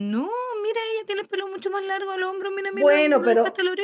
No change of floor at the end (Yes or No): No